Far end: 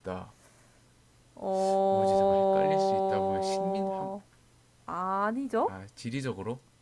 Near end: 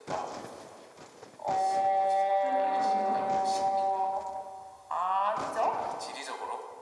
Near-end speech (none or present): present